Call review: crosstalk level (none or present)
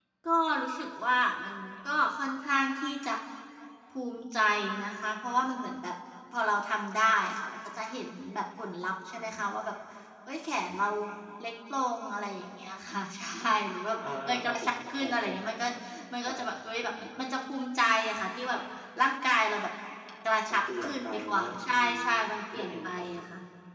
present